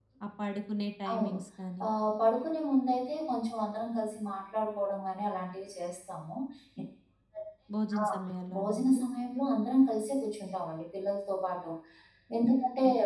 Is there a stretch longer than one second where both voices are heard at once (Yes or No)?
No